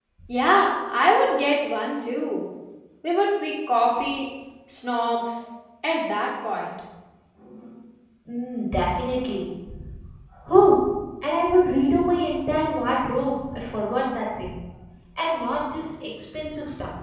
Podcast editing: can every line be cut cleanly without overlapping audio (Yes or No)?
Yes